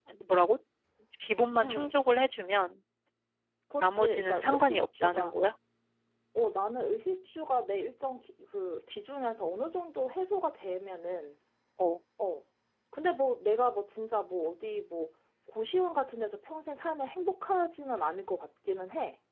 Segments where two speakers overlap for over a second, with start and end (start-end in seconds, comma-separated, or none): 3.8-5.4